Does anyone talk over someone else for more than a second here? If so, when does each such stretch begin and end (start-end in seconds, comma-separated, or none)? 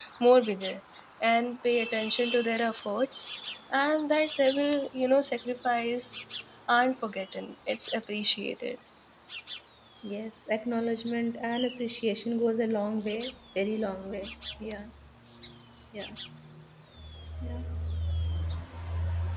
none